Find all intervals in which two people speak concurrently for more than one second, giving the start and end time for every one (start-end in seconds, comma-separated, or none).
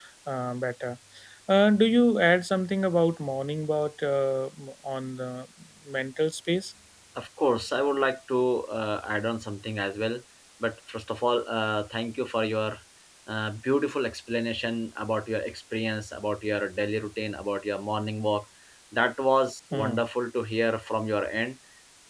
none